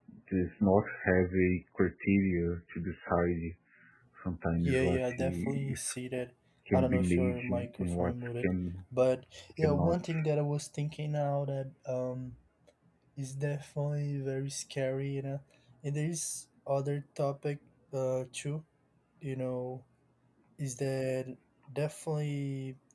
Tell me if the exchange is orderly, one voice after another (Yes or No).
No